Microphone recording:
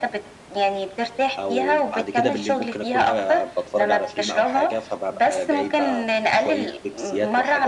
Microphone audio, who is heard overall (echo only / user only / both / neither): both